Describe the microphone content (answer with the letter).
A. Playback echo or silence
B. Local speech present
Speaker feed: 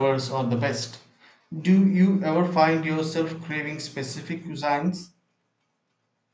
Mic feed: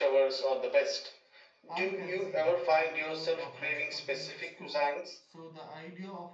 B